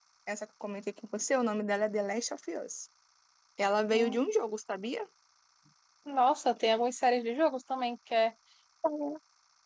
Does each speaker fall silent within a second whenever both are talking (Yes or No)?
Yes